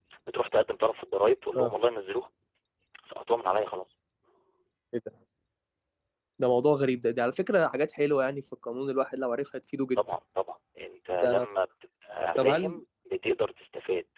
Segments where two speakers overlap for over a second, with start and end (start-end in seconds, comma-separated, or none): none